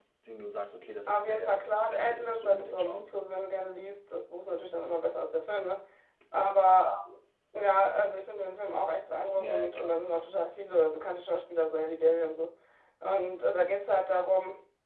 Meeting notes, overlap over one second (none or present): present